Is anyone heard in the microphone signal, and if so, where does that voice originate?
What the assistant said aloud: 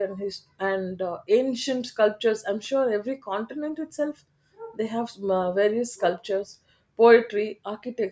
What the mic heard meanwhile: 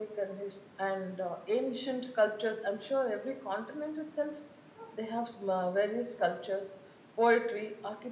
echo only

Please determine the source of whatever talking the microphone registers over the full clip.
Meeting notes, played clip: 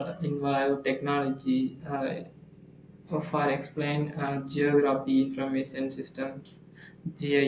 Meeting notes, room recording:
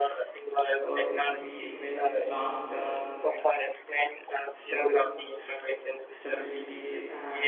both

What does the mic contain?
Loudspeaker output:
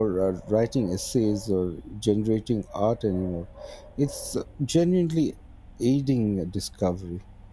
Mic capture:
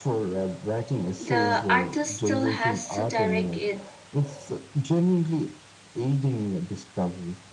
both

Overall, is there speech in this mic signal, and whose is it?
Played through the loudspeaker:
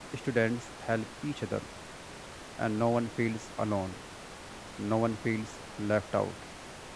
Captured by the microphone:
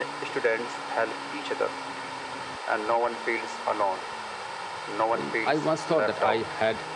both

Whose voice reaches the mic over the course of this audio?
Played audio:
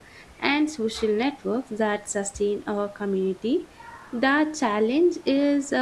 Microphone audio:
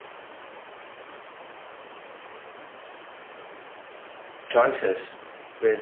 user only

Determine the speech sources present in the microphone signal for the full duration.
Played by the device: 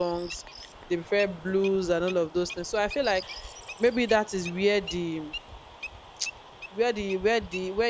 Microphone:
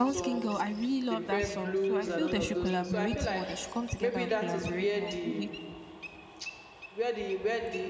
both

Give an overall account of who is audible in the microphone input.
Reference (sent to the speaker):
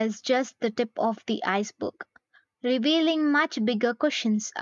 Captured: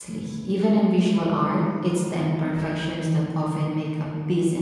user only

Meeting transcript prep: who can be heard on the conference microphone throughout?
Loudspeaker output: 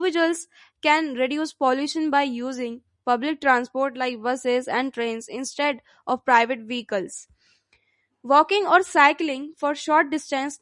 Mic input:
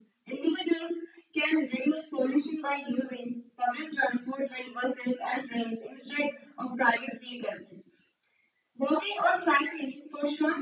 echo only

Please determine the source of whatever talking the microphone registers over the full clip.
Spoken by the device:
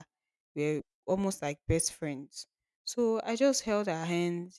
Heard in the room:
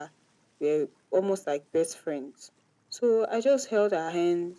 echo only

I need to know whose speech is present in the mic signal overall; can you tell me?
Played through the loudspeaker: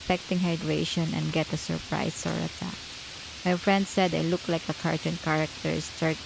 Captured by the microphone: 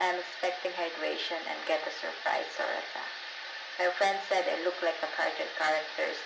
echo only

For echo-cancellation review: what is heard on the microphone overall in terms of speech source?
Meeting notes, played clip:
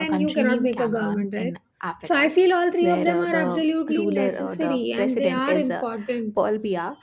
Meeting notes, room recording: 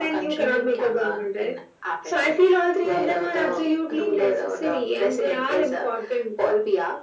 echo only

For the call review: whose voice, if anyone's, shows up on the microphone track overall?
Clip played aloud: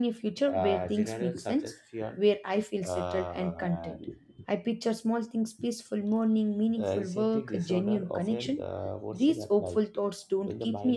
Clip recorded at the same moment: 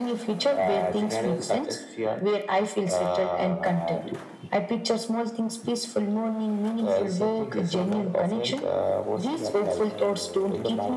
both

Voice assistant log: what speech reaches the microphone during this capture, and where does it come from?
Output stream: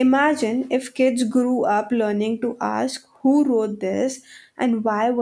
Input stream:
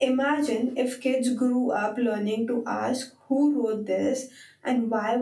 echo only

